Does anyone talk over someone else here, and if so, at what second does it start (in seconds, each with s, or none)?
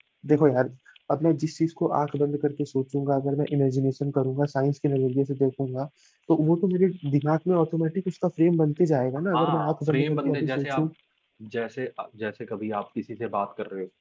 9.3 s